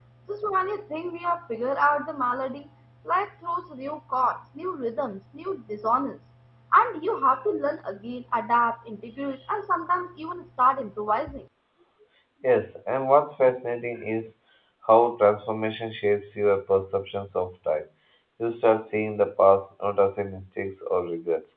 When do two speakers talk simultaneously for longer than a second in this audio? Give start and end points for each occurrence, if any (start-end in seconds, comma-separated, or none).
none